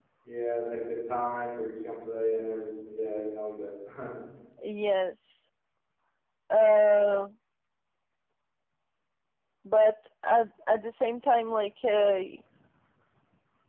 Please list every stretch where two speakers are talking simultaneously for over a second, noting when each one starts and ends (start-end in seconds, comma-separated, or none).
none